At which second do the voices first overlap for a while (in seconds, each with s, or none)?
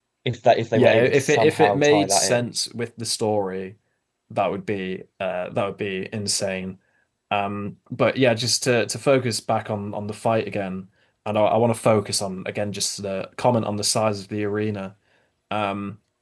0.8 s